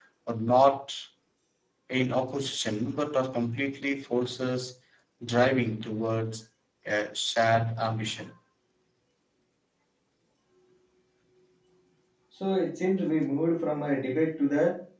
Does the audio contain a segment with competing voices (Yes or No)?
No